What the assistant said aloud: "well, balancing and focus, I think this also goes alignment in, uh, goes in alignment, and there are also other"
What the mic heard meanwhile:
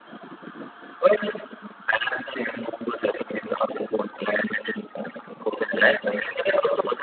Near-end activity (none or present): none